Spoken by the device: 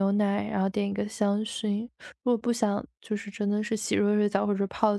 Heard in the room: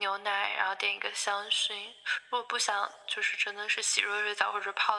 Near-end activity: none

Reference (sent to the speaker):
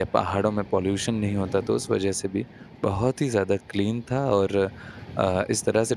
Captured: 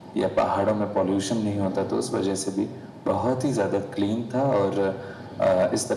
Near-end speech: none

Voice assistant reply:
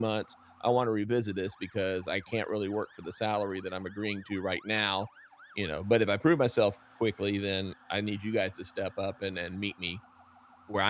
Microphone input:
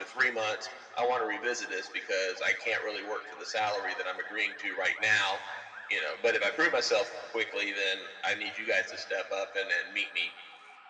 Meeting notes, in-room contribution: none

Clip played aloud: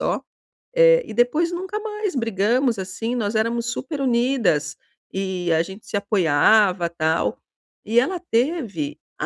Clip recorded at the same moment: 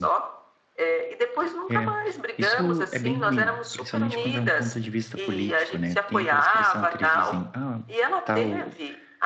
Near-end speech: present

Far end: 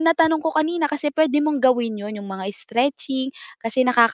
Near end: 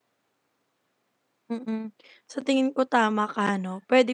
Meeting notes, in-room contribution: present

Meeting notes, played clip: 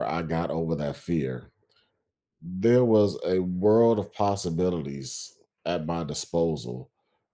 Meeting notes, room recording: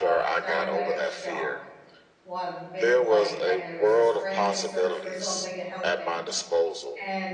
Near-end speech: present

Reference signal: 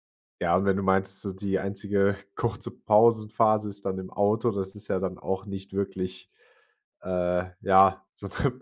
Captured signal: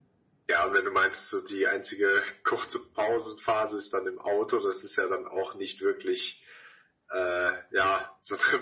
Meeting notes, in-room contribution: none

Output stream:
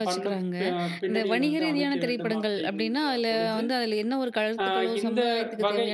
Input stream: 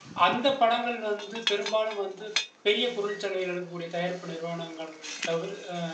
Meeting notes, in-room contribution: present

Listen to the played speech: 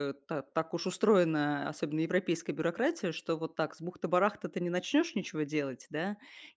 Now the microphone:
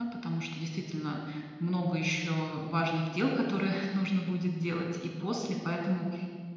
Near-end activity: present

